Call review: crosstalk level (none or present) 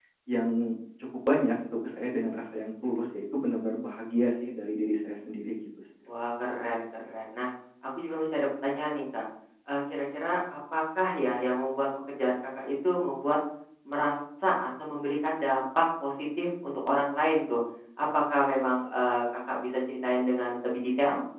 none